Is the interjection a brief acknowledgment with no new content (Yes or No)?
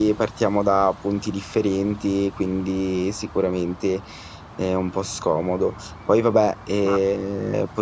Yes